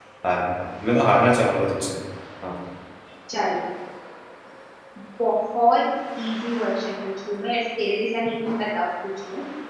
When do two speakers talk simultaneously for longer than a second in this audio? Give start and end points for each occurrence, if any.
none

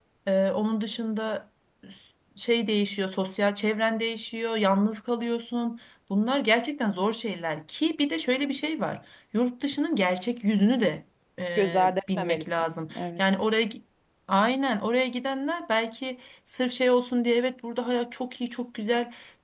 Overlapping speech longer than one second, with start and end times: 11.6-13.2

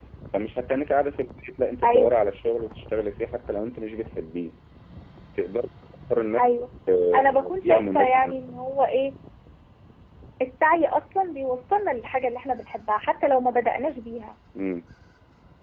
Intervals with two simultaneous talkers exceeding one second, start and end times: 7.1-8.6

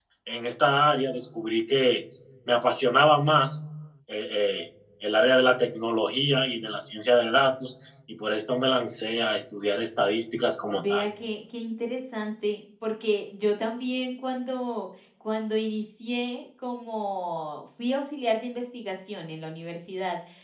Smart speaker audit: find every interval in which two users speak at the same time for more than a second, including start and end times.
none

